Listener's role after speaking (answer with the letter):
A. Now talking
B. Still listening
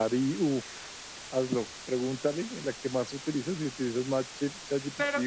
A